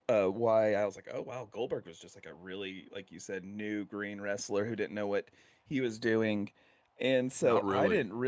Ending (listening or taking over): listening